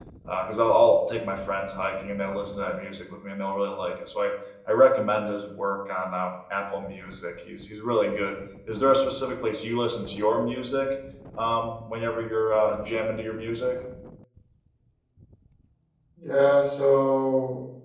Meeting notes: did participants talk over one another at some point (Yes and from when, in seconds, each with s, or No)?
No